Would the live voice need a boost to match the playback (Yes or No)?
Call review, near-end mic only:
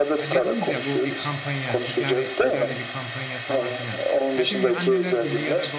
Yes